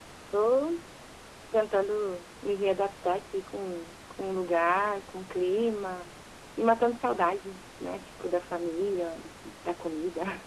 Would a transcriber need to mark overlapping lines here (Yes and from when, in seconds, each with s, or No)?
No